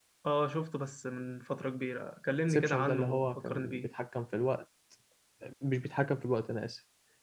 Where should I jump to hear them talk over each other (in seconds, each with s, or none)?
2.5 s